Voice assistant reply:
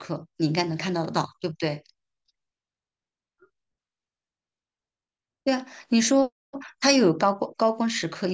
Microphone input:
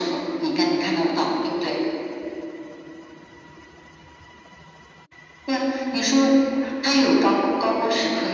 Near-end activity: none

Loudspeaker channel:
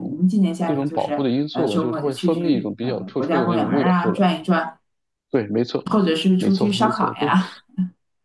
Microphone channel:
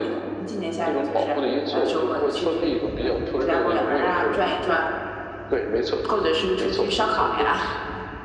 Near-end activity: none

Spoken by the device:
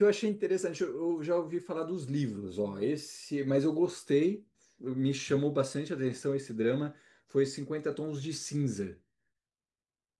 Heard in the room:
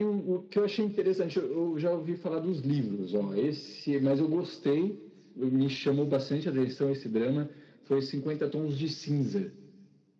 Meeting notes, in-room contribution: none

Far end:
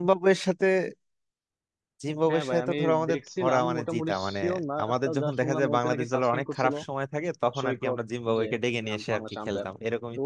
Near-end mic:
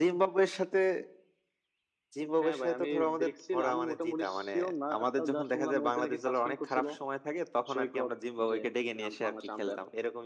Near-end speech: none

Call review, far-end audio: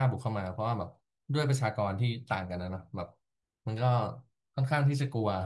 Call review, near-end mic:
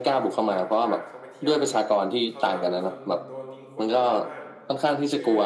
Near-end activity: present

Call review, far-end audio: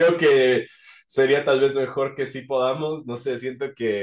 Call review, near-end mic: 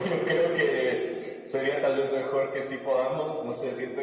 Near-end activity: none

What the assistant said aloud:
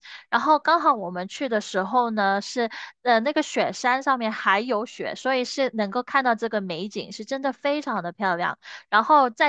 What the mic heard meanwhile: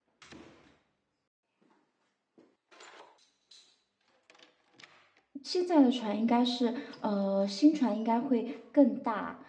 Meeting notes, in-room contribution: present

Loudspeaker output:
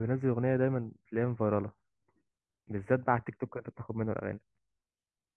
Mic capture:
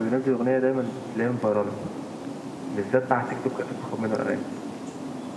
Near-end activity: none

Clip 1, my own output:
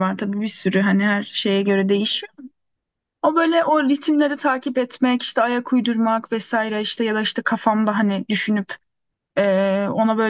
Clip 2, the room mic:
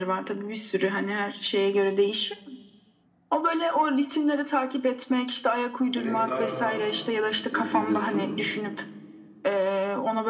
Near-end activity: present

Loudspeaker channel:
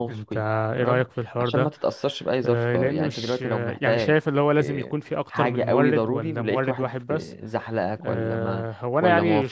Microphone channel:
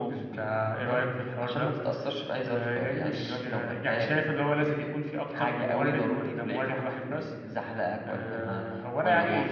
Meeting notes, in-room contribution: none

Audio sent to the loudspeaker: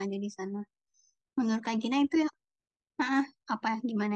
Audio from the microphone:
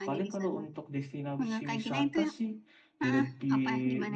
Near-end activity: present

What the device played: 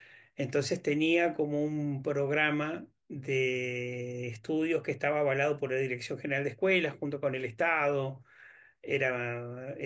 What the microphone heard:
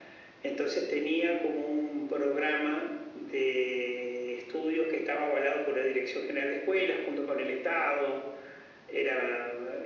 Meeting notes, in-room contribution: none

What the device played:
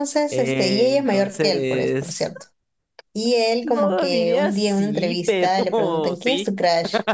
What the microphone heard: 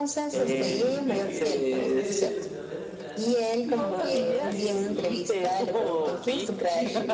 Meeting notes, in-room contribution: present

